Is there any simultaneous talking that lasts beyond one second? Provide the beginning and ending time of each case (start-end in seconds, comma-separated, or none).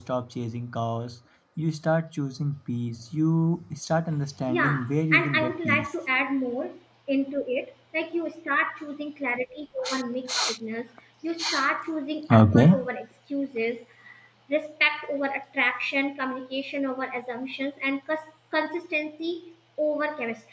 4.5-5.9